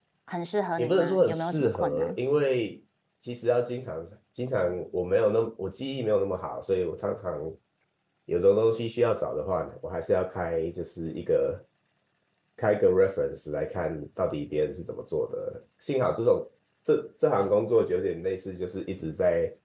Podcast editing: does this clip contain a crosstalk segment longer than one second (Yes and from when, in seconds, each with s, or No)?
Yes, from 0.8 s